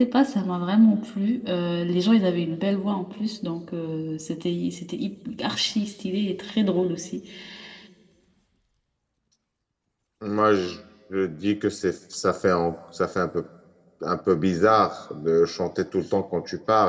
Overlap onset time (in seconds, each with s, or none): none